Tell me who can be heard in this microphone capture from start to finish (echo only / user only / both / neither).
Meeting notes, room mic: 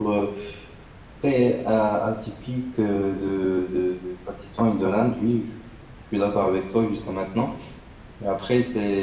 user only